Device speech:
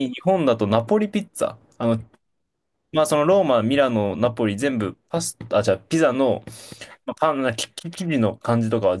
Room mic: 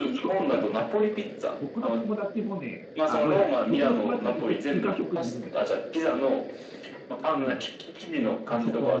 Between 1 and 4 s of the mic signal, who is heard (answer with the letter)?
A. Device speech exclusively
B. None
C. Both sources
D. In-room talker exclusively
C